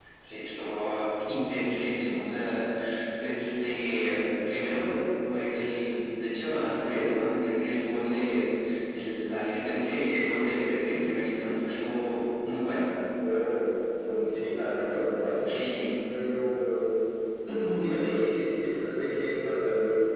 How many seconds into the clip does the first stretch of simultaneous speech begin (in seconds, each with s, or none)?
none